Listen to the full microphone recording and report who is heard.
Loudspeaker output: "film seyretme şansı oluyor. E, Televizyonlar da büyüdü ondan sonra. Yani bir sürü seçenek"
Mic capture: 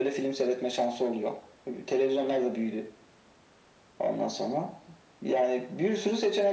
echo only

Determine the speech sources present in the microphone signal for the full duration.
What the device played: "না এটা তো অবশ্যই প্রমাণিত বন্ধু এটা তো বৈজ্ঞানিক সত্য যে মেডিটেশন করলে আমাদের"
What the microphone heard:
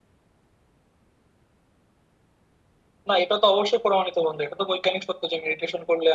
echo only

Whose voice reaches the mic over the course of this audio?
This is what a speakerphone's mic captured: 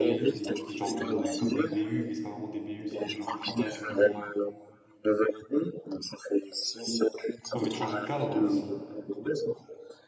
both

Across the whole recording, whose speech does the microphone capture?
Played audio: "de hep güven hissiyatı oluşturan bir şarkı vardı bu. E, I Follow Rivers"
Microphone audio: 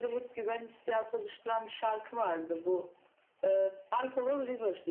echo only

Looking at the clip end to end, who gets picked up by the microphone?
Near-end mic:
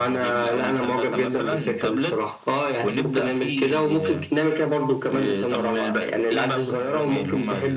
echo only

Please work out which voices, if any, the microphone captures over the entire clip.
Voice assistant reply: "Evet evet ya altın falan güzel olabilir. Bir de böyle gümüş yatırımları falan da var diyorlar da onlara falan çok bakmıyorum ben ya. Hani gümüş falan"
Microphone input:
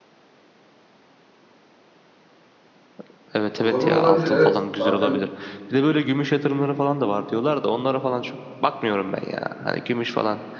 both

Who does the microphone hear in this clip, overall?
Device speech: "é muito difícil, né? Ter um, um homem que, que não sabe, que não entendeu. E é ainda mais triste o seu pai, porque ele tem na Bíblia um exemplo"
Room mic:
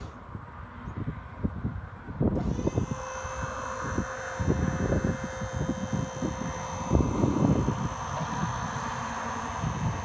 neither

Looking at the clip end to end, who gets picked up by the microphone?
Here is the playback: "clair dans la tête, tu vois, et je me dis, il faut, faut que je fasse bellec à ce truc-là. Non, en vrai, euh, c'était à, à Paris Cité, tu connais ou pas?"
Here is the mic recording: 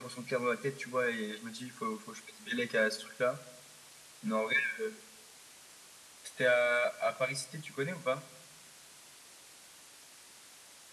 echo only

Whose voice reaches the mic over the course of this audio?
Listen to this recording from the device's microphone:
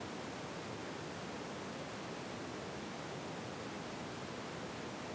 neither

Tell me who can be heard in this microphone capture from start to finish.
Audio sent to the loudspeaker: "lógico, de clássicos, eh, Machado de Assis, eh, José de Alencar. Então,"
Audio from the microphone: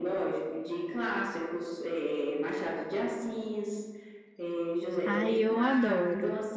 both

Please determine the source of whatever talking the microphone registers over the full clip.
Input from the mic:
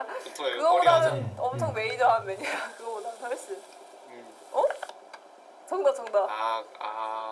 both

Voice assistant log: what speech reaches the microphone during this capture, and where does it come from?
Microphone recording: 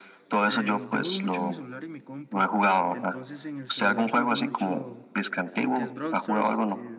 both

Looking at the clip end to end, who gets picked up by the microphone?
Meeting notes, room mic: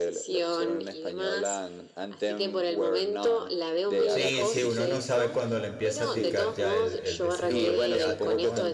both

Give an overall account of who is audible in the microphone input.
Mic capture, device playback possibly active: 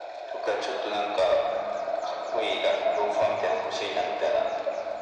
echo only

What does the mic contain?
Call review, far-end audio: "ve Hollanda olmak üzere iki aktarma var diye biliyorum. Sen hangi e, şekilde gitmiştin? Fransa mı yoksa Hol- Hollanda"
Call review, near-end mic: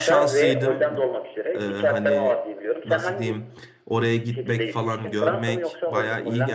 both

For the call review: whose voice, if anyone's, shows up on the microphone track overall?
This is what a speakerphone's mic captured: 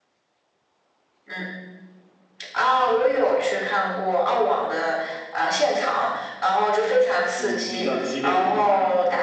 both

